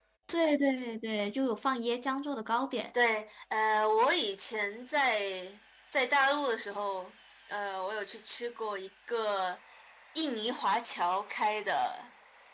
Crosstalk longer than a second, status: none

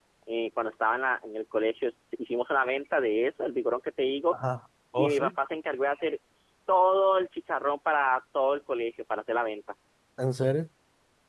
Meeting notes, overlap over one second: none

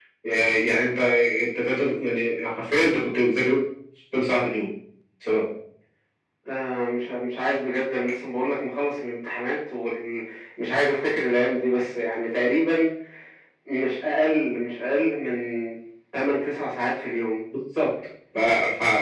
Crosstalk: none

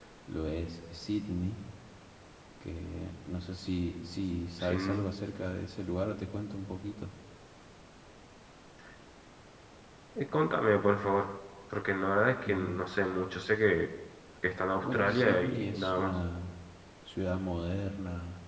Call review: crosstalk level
present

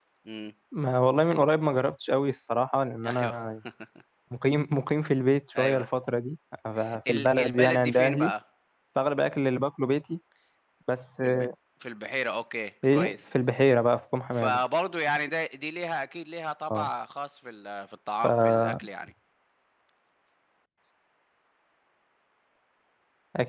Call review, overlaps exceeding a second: present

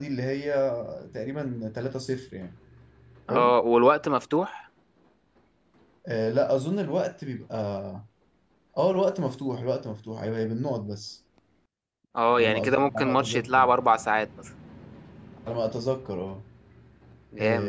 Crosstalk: present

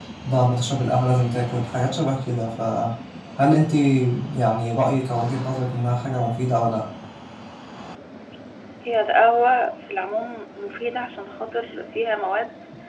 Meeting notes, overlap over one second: none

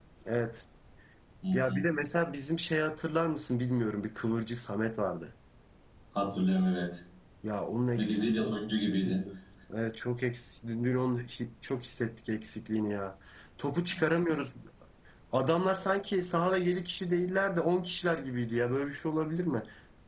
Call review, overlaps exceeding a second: present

